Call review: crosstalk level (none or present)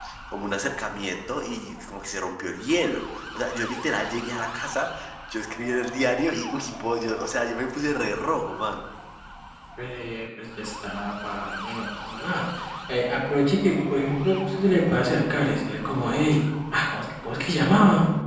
none